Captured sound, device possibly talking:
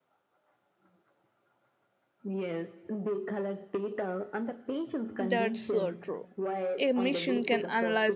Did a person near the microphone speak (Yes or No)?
Yes